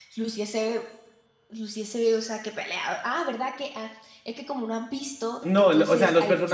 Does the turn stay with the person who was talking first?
No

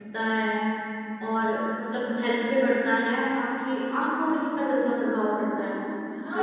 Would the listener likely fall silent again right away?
No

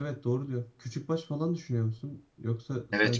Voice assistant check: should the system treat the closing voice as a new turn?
Yes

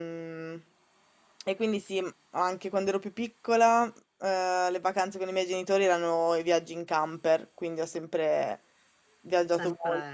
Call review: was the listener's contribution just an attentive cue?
Yes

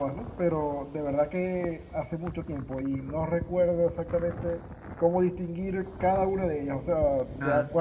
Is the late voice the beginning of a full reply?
No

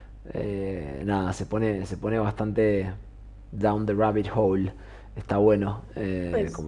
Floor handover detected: No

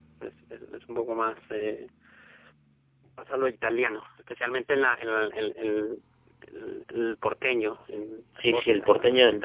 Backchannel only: No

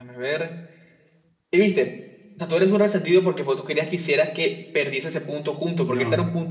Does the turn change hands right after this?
No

